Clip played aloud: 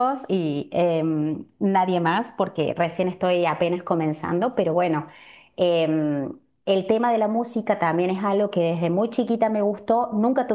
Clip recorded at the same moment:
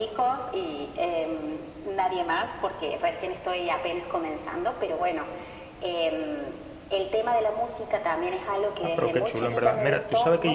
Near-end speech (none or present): present